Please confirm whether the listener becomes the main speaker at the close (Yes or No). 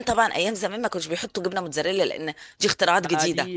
Yes